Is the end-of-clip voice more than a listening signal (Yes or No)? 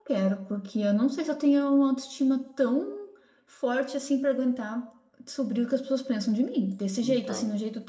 No